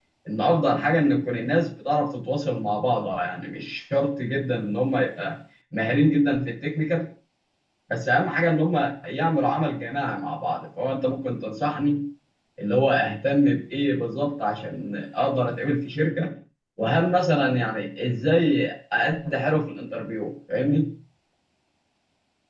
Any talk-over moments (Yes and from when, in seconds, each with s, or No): No